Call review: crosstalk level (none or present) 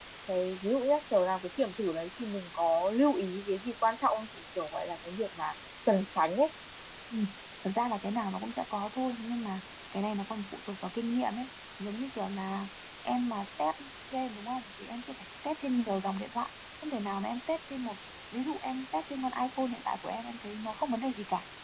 none